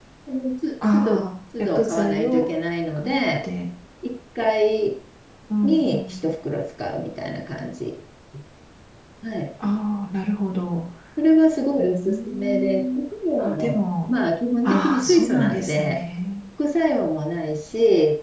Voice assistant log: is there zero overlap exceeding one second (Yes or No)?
No